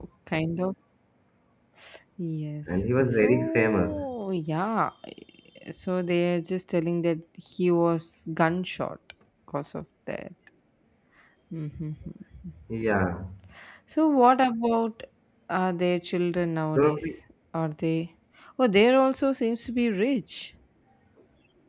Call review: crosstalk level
present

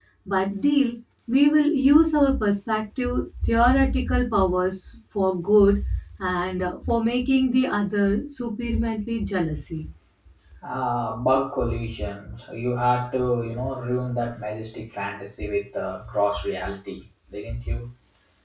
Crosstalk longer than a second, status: none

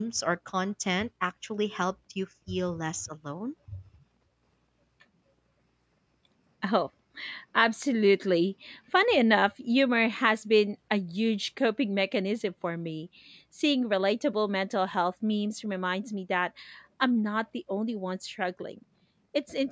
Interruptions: none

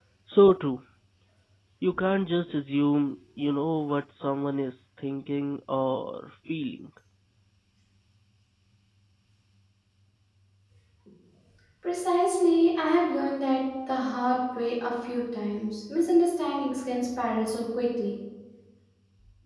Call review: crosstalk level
none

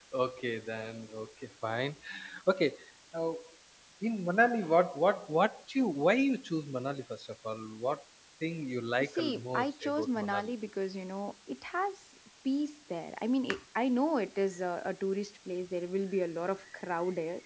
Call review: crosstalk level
present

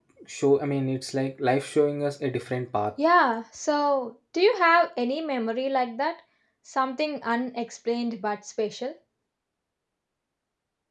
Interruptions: none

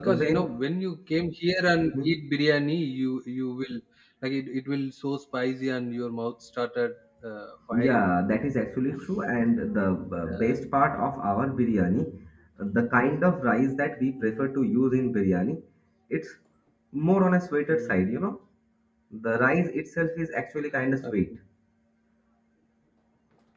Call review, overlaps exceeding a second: none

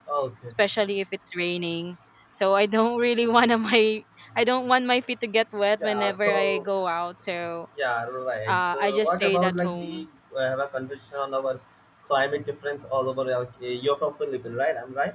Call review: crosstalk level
present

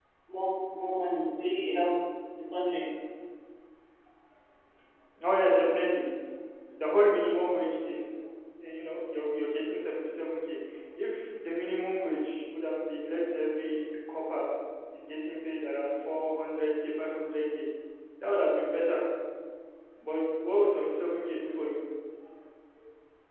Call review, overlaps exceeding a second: none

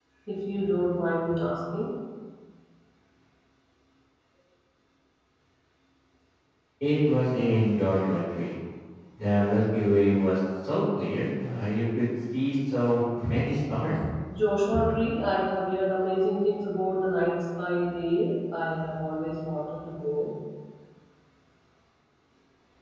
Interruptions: none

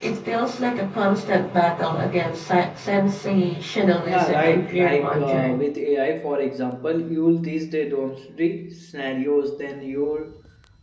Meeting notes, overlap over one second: present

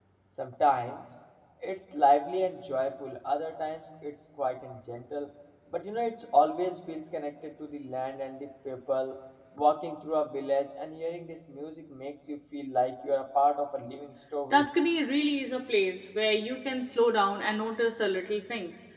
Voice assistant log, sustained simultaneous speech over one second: none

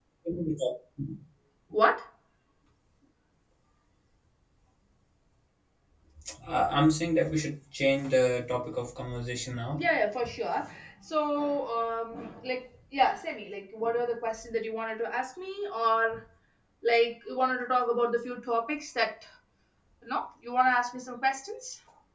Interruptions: none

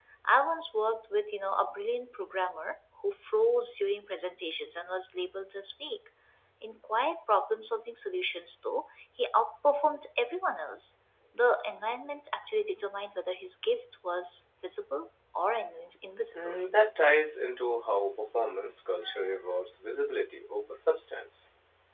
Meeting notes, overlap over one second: none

